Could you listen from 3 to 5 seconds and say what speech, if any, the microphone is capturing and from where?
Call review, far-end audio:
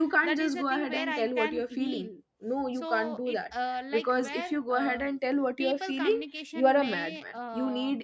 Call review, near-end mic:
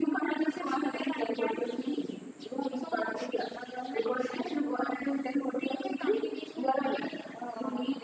echo only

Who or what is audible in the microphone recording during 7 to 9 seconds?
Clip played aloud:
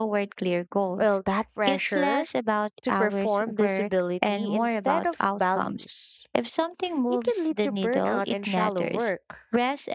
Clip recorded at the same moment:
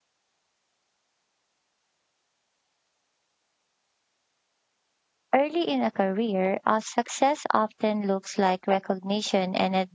user only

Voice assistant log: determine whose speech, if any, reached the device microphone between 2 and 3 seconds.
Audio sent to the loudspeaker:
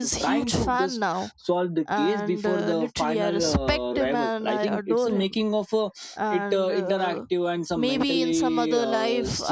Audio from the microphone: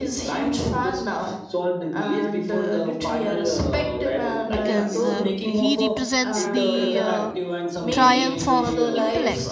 echo only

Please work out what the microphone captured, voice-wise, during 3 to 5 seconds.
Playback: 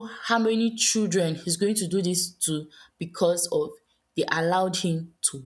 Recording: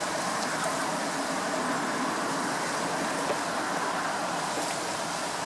neither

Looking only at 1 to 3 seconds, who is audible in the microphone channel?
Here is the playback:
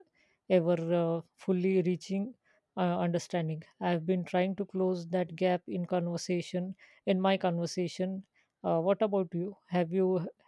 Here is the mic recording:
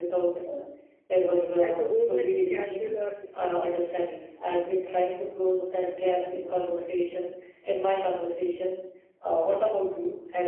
both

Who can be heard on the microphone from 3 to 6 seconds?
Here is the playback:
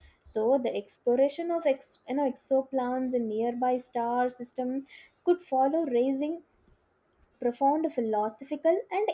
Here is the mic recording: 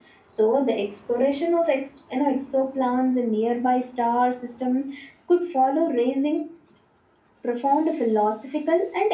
echo only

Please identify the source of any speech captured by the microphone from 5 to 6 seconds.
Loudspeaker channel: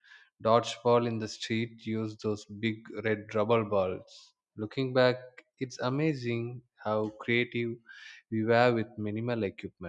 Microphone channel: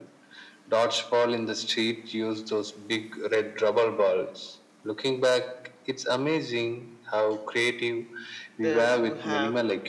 echo only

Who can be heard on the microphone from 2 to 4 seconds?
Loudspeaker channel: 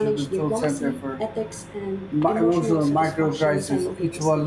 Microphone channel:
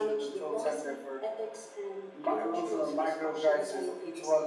echo only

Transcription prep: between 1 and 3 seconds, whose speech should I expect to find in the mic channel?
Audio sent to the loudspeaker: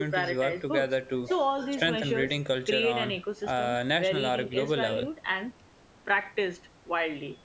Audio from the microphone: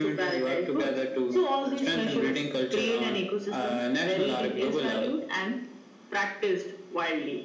echo only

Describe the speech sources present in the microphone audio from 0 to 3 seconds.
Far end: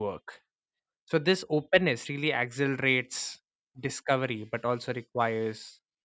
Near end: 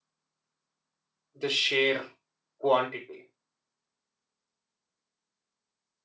user only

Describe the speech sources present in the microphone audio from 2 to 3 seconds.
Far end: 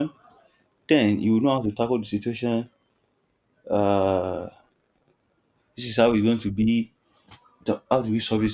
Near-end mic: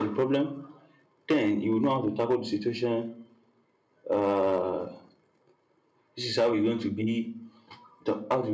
echo only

